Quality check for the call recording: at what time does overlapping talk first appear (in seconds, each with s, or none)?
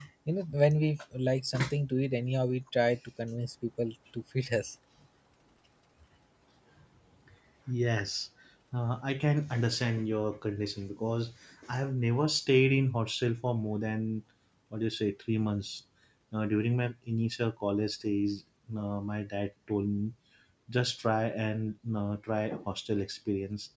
none